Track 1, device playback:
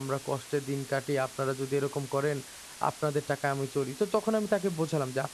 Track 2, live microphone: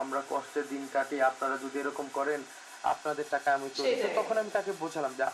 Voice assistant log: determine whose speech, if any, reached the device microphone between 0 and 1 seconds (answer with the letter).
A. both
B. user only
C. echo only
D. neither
C